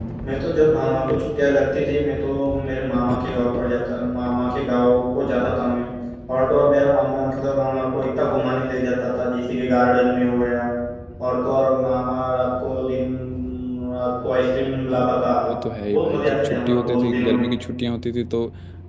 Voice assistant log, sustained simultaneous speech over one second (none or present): present